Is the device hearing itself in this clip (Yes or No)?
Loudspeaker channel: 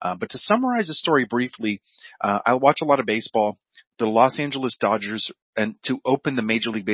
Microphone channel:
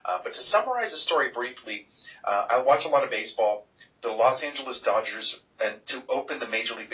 Yes